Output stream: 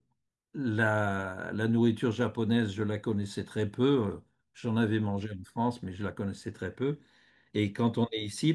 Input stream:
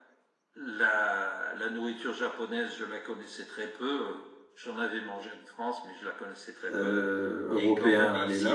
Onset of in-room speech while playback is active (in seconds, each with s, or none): 6.7 s